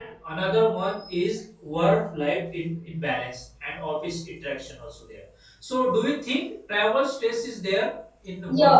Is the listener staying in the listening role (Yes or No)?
No